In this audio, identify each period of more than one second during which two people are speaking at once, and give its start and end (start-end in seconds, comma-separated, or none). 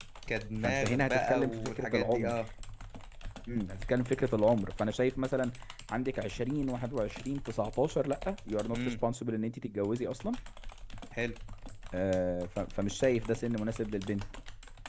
0.6-2.4